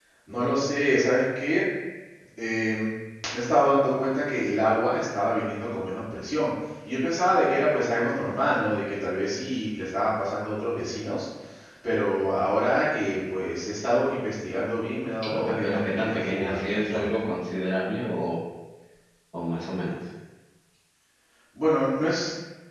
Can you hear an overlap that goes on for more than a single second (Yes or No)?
Yes